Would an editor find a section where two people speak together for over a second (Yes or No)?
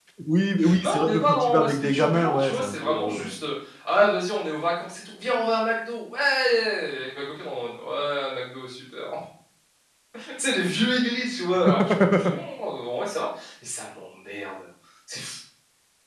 Yes